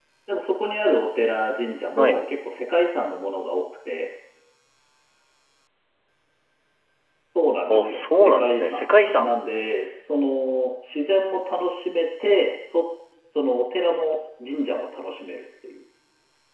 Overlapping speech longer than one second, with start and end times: 7.7-9.3

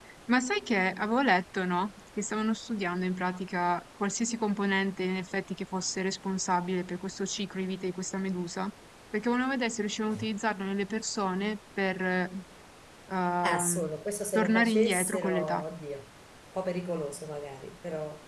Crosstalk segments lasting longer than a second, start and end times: 14.3-15.6

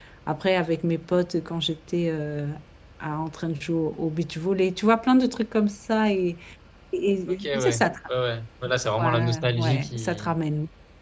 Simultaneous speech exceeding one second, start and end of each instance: 9.0-10.3

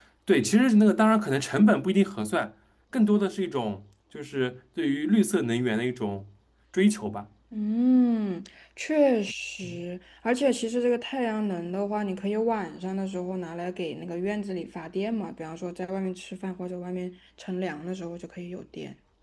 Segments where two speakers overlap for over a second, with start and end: none

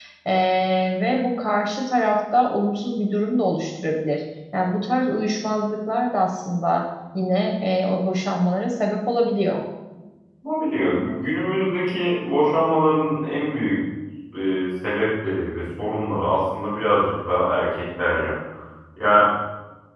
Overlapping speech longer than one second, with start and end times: none

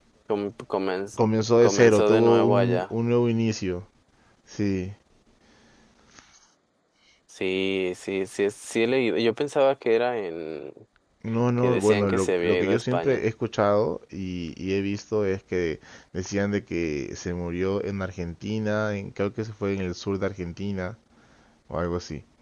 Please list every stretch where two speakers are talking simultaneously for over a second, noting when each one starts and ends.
1.6-2.8, 11.6-13.2

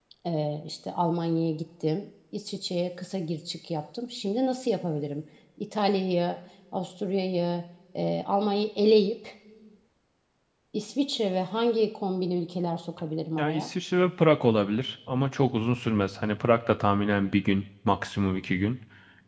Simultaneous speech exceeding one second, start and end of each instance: none

